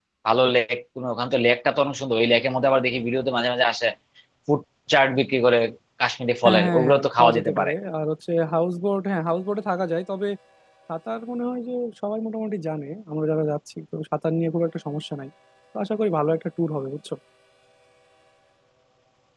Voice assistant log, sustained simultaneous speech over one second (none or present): present